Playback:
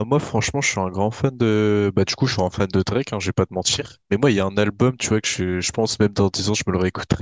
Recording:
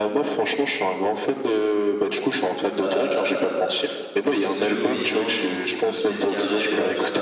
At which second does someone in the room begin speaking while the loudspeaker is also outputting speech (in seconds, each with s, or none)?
2.8 s